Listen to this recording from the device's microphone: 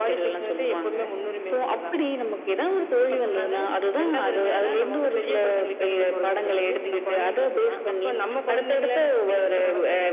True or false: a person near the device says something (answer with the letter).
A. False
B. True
A